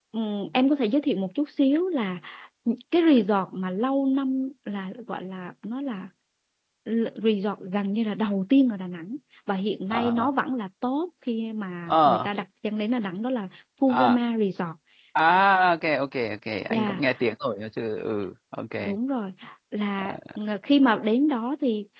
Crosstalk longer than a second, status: none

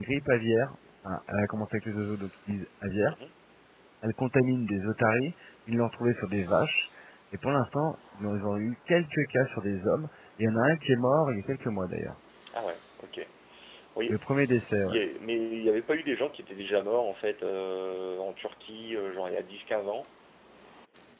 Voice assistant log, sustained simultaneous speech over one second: none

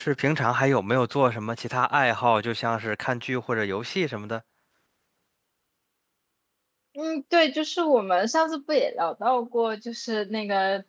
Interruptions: none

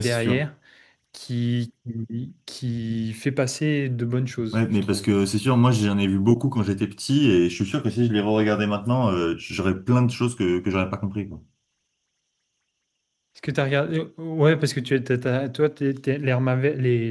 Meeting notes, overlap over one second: none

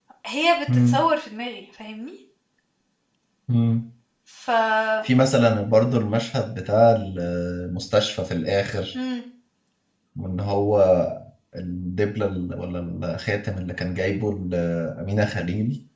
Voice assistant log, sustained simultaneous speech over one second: none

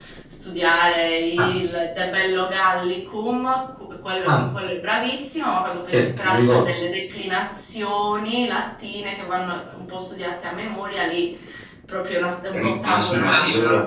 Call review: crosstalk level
present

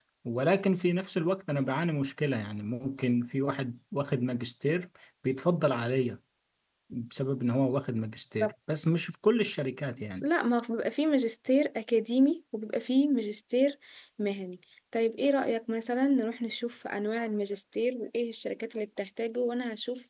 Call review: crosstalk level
none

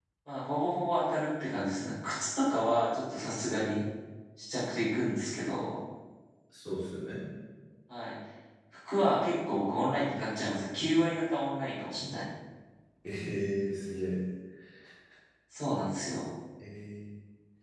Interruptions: none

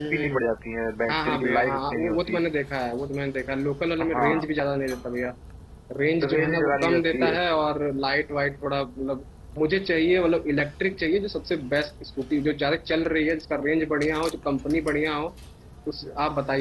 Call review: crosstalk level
present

